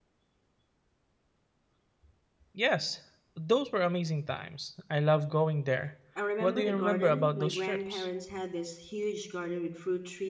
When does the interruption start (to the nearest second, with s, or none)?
6 s